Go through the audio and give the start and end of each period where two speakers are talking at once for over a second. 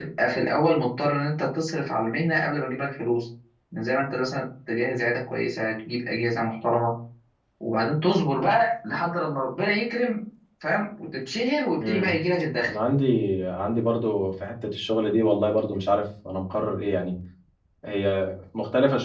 none

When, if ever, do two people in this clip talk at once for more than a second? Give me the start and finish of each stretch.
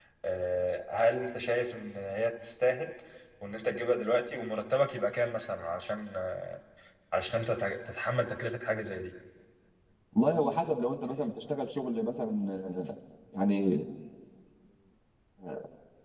none

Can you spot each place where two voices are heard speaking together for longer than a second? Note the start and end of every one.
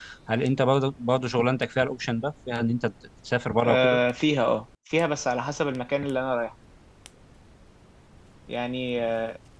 none

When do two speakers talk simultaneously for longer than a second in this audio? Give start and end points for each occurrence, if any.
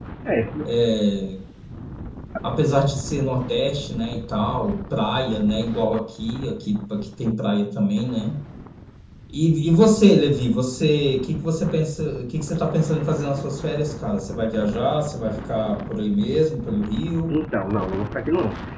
none

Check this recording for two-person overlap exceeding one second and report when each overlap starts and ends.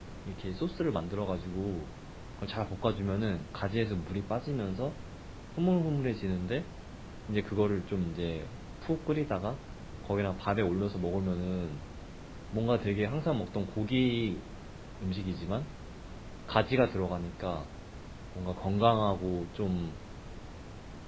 none

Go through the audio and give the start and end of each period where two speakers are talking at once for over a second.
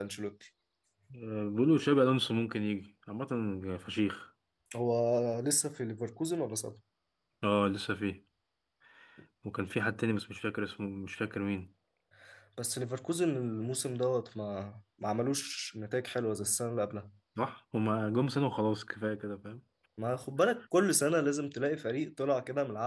none

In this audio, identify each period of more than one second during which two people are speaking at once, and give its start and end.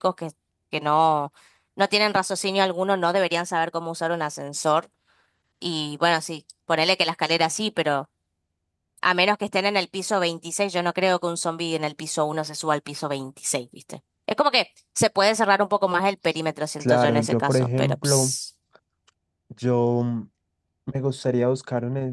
16.8-18.3

